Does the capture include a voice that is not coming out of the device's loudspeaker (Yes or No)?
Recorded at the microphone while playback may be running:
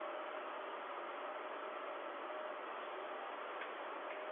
No